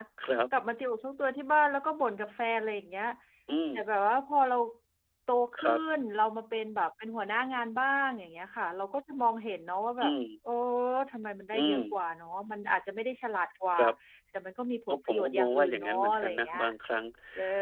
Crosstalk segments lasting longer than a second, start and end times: 14.9-16.6

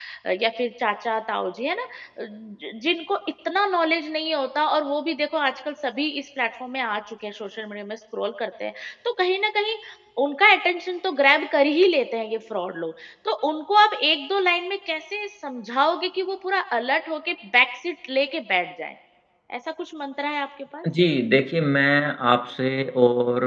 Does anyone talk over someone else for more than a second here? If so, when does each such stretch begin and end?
none

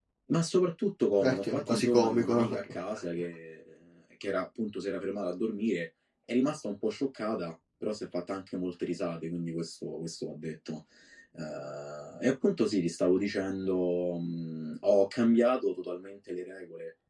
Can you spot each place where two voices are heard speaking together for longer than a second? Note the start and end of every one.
1.2-2.6

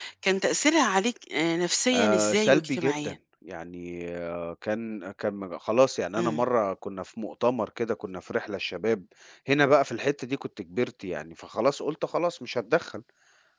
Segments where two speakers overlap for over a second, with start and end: 1.9-3.1

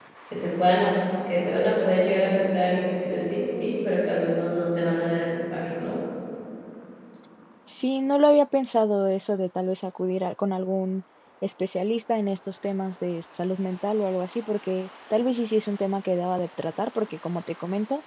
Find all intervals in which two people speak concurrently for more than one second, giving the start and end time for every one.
none

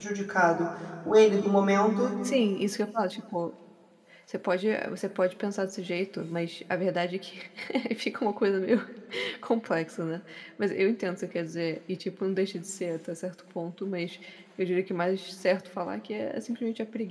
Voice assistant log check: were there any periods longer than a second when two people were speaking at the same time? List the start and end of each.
none

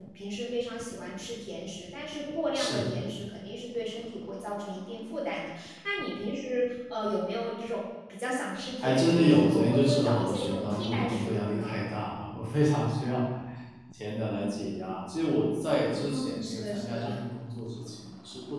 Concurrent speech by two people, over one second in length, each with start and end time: 8.8-11.8, 15.9-17.2

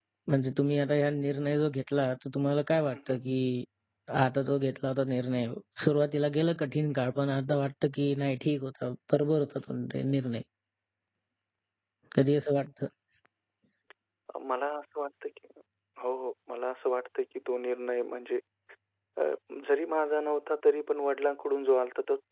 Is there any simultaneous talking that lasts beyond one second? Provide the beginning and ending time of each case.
none

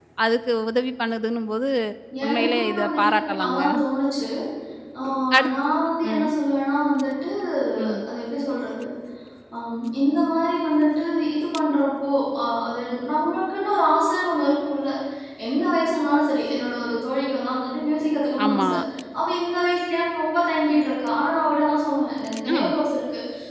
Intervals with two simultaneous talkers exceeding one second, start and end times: 2.2-3.6

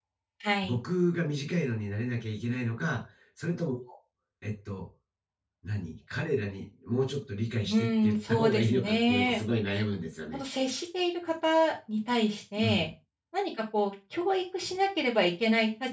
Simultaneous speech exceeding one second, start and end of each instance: 7.7-9.4

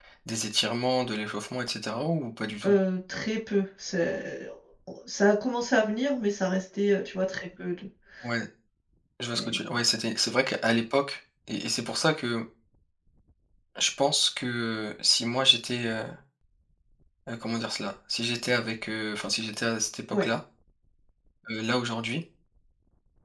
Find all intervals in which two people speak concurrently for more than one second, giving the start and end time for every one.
none

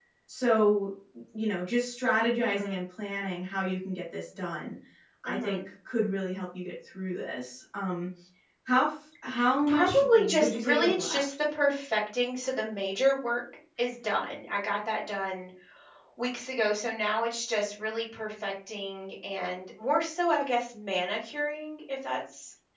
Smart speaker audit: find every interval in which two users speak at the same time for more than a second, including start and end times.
9.7-11.2

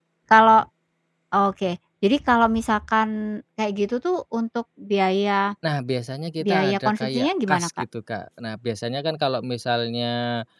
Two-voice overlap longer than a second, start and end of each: 6.4-7.7

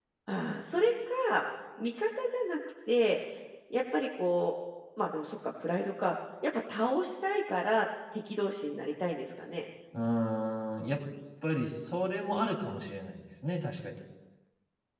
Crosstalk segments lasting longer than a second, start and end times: none

